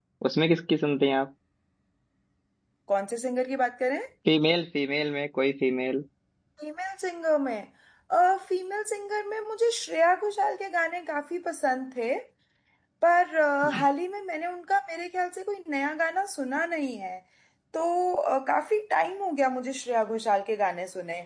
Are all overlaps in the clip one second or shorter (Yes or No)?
Yes